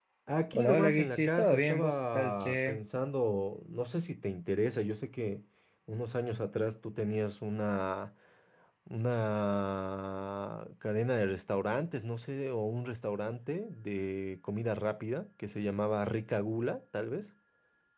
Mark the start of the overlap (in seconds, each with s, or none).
0.5 s